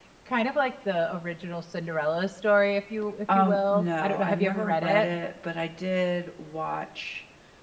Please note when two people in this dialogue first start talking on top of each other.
3.3 s

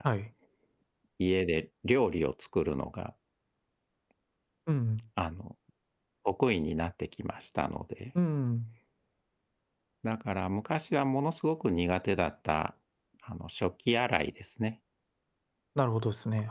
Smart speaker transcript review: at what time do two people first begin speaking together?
none

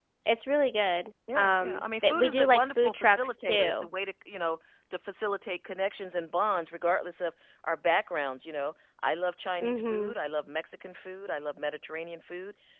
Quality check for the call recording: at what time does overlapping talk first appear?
1.4 s

